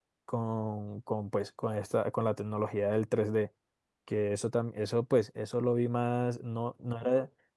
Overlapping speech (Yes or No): No